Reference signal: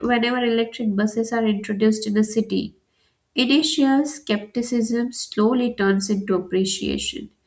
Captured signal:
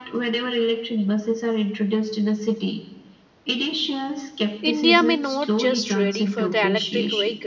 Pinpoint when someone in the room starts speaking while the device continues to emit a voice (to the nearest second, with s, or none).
5 s